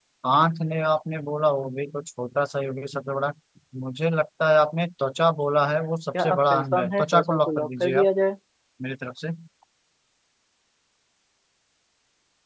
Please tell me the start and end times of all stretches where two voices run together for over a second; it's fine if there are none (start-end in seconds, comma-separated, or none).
6.1-8.1